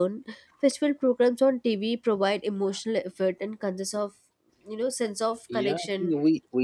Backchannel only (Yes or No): No